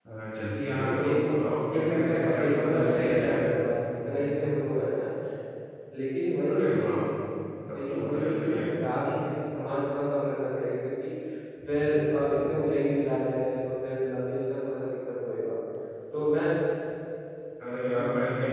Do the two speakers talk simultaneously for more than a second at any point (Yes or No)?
Yes